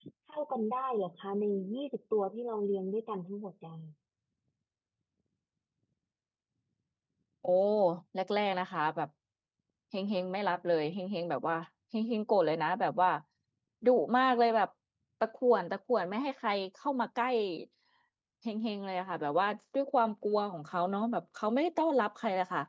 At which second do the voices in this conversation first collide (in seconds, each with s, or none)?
none